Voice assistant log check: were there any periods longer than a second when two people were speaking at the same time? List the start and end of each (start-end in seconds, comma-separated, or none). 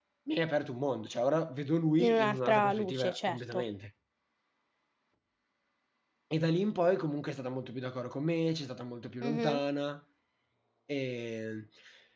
2.0-3.6